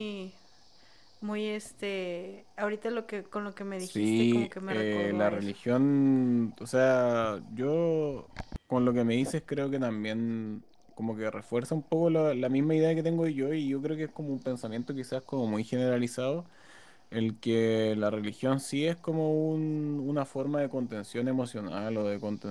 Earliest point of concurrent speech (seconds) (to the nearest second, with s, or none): 4 s